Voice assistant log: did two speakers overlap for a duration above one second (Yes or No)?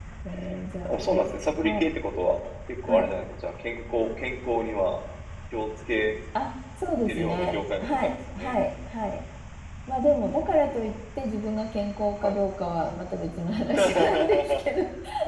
Yes